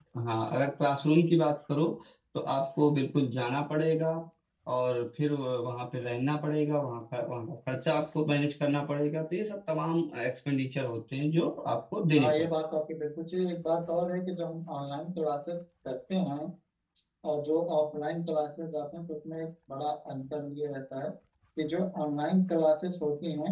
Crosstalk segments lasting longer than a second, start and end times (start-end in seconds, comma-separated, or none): none